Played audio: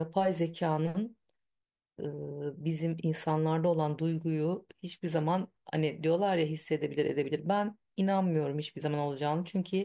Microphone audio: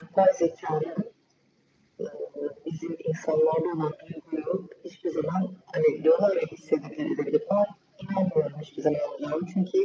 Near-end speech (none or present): none